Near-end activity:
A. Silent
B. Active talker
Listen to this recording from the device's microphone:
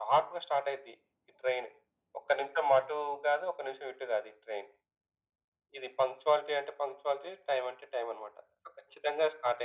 A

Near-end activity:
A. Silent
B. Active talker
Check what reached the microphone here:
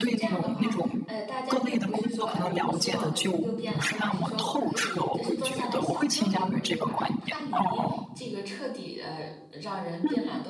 B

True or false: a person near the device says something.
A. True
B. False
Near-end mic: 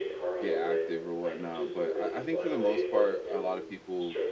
A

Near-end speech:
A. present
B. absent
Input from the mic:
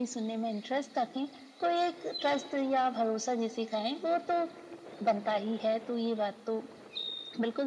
B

